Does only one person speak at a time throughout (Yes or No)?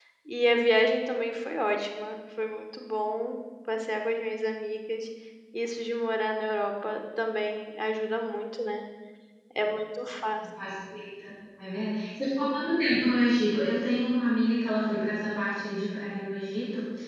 Yes